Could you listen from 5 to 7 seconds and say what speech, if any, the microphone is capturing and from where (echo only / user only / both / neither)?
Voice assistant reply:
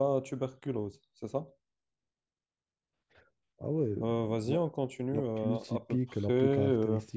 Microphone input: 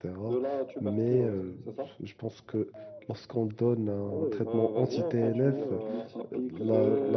both